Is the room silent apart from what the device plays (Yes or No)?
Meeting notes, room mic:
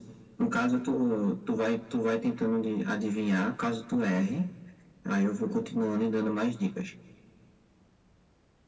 Yes